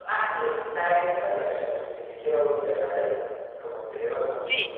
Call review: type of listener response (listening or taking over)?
taking over